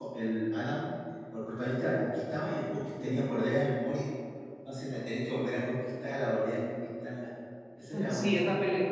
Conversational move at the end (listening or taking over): taking over